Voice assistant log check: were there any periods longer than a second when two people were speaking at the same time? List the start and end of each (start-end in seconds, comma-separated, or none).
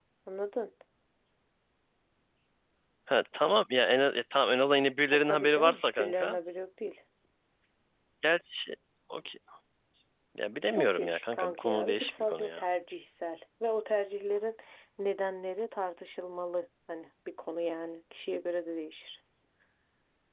5.1-6.4, 10.7-12.6